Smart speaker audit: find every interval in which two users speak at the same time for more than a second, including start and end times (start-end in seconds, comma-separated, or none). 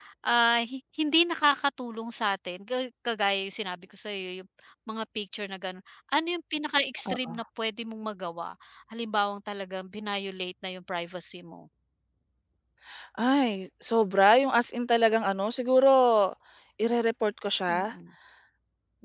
none